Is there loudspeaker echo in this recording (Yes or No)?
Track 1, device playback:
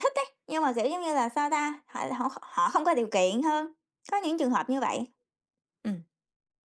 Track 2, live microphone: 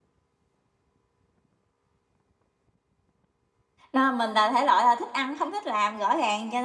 No